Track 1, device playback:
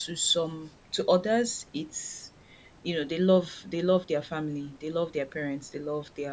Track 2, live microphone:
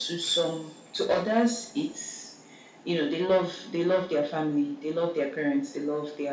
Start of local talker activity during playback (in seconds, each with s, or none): none